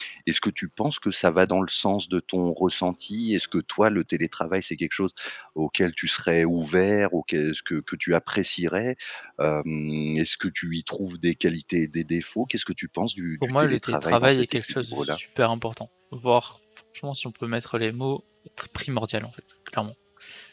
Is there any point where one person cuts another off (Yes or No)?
Yes